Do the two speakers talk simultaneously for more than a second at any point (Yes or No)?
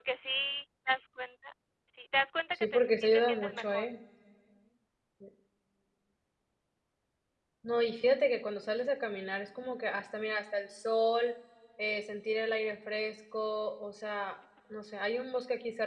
Yes